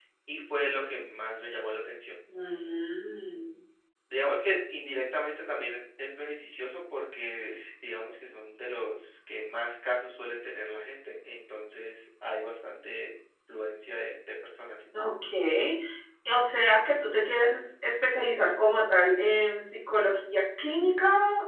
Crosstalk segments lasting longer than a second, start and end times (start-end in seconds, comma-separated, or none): none